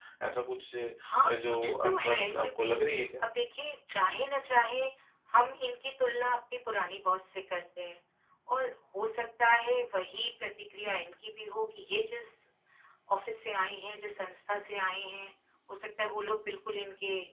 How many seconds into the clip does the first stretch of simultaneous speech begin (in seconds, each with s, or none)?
1.0 s